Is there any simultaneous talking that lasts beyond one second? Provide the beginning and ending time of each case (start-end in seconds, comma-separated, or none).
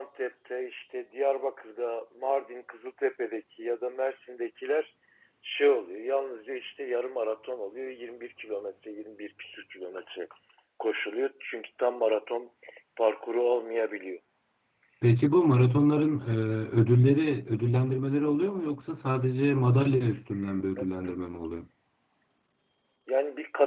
none